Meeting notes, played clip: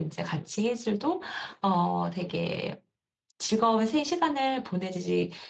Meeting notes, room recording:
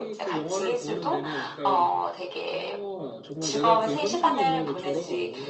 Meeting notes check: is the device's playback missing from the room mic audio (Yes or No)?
No